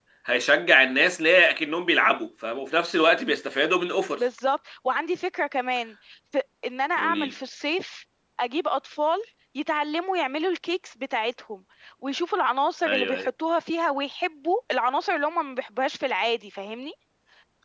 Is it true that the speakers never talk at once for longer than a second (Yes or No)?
Yes